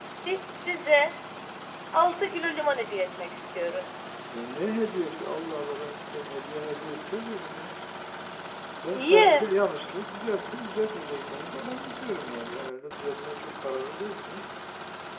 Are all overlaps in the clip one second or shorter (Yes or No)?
Yes